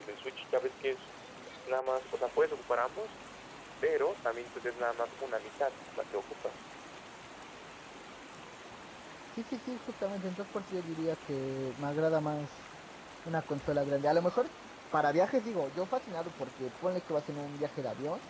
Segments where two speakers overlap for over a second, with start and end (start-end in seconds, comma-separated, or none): none